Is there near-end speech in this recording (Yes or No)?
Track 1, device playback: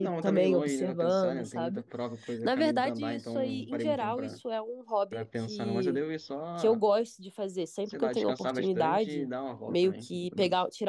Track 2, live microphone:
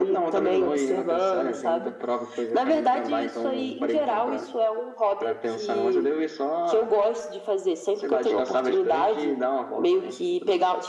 No